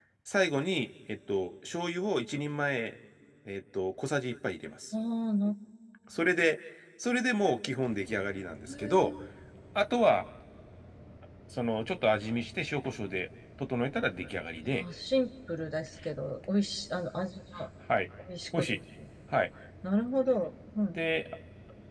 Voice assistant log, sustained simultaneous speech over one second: none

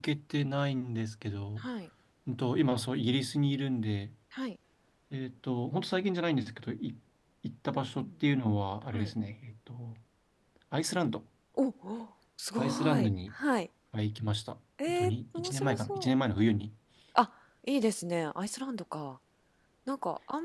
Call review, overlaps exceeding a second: present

